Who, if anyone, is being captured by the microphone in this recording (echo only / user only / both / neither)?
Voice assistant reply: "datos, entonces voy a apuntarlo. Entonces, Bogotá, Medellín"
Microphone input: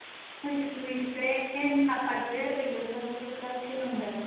user only